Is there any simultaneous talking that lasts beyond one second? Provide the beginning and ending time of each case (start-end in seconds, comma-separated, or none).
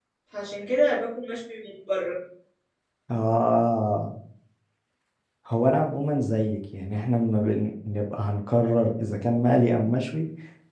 none